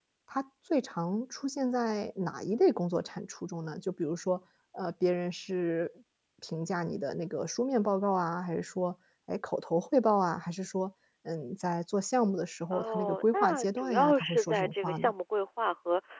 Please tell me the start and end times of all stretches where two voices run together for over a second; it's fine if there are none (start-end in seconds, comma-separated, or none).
12.7-15.1